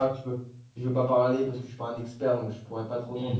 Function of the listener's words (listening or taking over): taking over